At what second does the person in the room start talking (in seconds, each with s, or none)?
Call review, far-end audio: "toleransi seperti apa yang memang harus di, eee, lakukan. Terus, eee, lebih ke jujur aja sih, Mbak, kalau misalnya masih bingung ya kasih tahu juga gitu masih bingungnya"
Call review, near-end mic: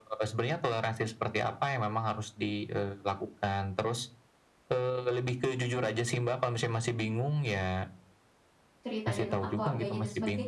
8.8 s